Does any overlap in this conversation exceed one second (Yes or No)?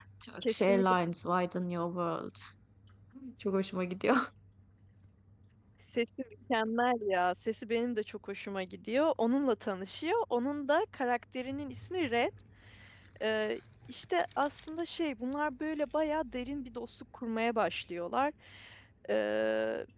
No